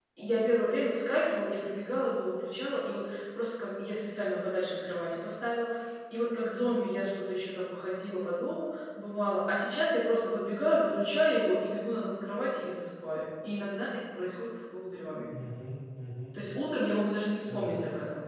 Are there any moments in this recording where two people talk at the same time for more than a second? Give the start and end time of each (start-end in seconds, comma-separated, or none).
none